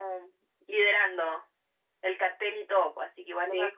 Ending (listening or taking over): taking over